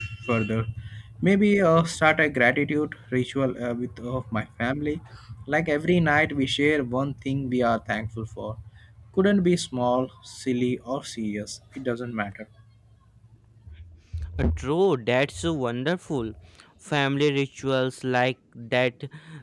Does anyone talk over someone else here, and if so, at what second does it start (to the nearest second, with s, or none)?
none